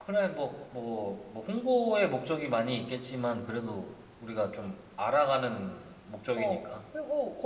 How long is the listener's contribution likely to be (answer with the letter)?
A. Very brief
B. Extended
B